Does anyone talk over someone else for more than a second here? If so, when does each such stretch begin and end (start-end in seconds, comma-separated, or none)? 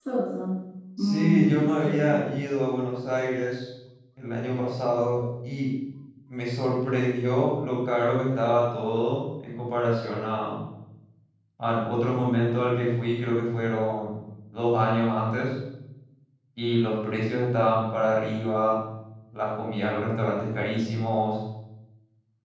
1.0-2.2